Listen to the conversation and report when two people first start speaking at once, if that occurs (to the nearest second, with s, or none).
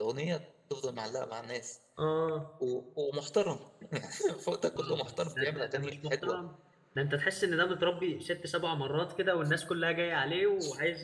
5 s